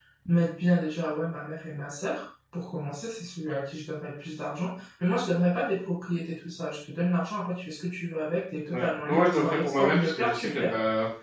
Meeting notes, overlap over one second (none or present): present